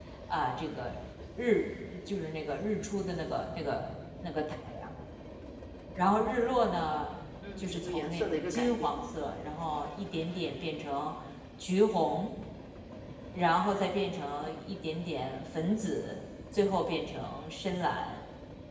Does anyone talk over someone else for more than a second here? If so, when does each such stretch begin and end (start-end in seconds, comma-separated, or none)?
7.6-8.9